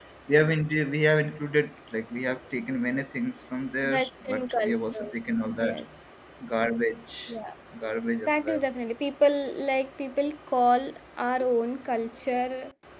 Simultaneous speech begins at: 3.8 s

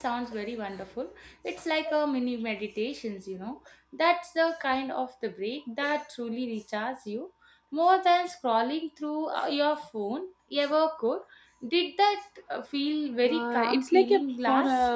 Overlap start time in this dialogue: 13.2 s

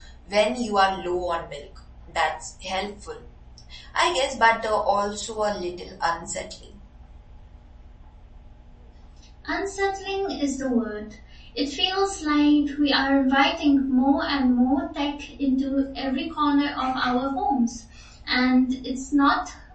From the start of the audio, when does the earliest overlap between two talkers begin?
none

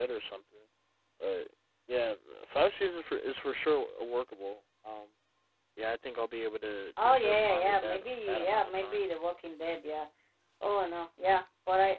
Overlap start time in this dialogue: 7.0 s

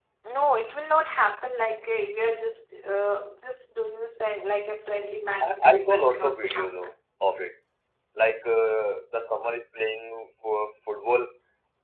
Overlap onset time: 5.4 s

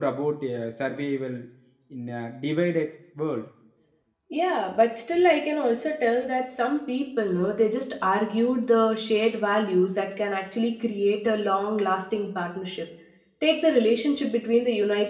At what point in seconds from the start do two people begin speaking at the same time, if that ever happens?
none

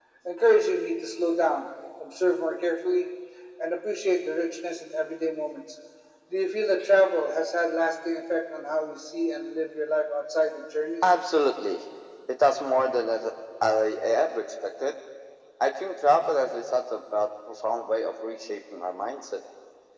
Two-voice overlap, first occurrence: none

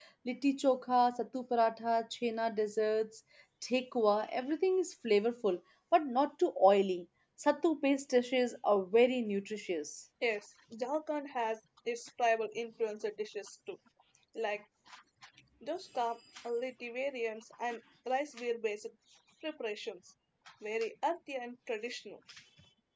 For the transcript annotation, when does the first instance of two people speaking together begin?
none

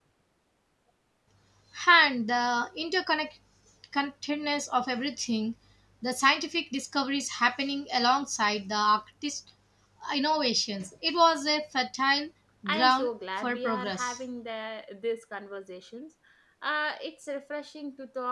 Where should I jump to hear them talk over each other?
12.7 s

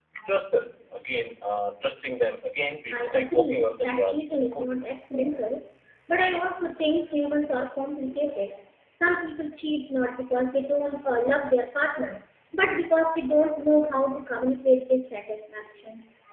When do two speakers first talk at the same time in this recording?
2.9 s

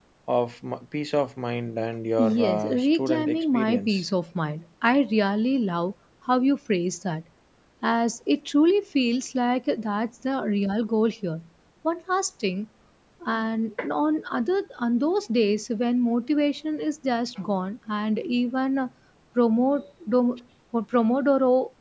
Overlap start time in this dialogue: 2.2 s

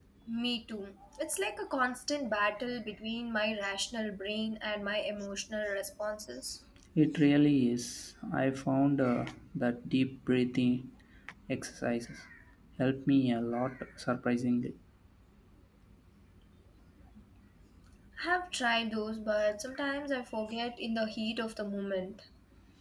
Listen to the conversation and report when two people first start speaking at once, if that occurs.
none

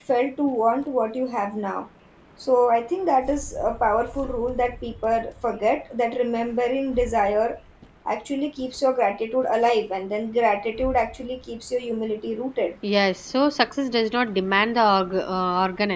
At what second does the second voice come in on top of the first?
none

